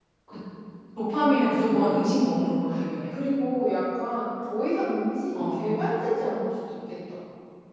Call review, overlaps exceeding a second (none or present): none